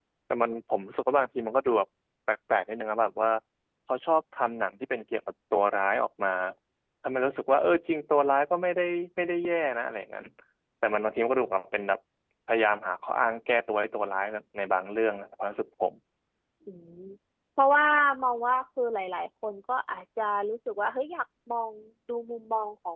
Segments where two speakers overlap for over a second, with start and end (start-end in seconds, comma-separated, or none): none